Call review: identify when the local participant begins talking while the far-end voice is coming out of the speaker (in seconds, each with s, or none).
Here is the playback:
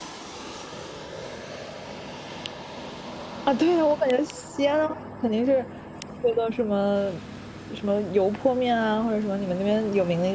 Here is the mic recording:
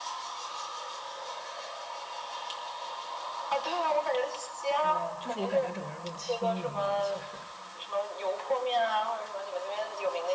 4.8 s